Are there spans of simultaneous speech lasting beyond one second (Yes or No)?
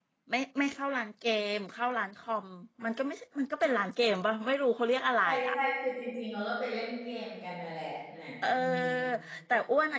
No